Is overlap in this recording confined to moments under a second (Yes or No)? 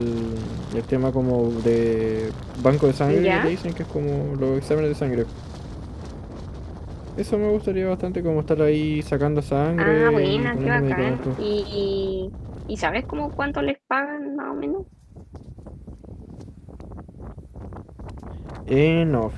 No